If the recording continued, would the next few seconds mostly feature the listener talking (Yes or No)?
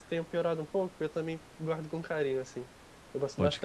Yes